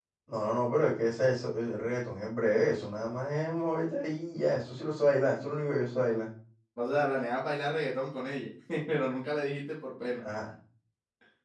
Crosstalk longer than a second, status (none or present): none